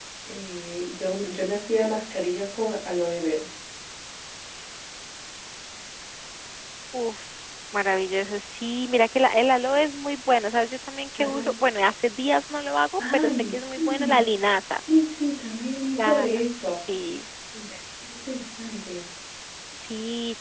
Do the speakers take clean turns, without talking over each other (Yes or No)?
No